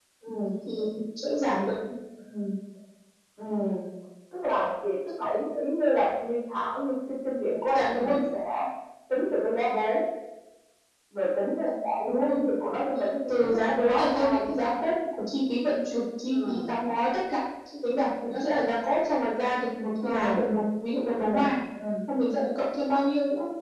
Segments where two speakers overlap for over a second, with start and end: 13.3-14.7

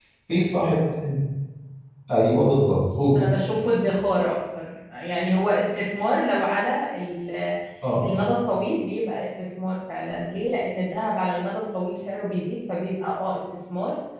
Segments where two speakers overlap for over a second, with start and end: none

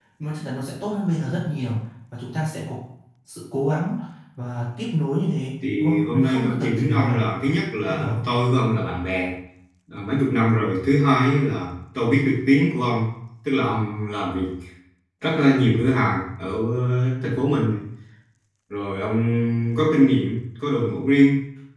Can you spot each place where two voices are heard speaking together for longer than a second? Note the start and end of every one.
5.8-7.2

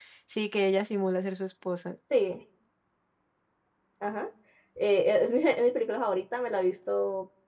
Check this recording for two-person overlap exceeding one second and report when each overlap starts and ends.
none

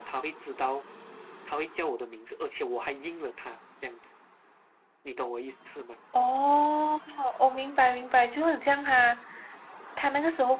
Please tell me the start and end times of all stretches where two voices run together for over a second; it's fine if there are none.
none

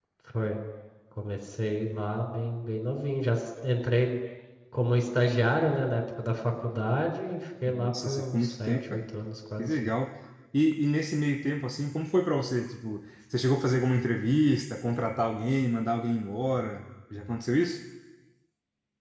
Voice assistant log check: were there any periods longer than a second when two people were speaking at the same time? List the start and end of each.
7.7-9.0

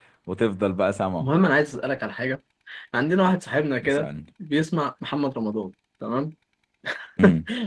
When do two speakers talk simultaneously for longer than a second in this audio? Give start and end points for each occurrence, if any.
none

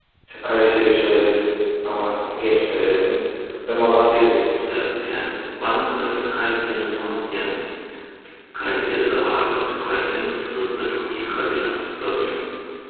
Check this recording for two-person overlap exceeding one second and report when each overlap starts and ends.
none

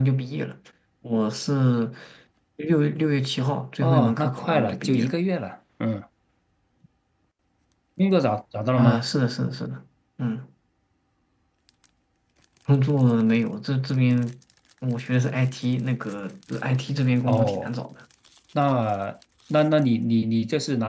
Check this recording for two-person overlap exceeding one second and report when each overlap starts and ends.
3.8-5.1

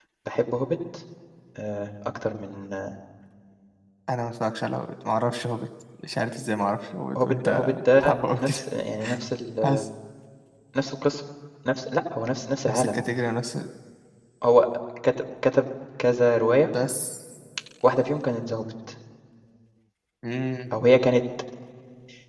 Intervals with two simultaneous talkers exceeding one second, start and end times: 7.2-8.6

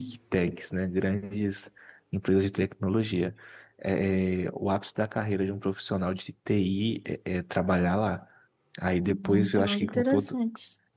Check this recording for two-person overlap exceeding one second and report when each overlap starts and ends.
9.1-10.3

